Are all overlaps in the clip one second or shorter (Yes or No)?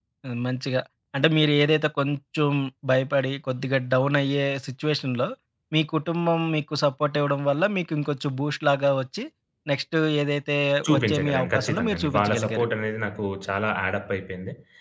No